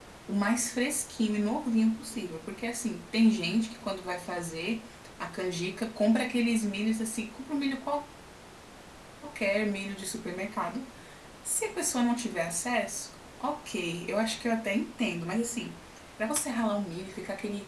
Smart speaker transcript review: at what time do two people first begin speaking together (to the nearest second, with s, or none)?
none